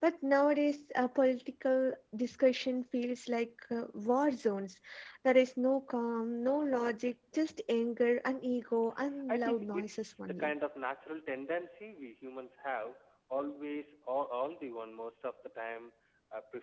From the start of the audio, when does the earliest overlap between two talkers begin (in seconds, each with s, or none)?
9.3 s